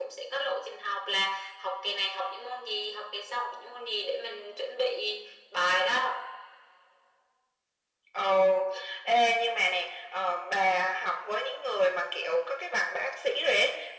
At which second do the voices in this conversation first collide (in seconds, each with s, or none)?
none